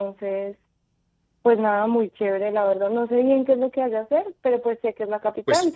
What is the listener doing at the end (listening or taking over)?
taking over